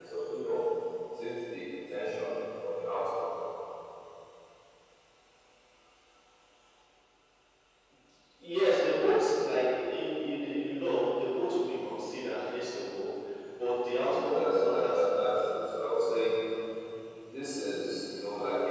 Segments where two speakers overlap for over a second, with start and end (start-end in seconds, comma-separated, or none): 14.0-15.2